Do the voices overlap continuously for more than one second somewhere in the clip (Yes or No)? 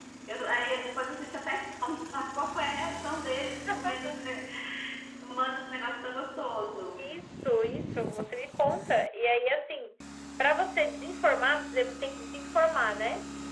No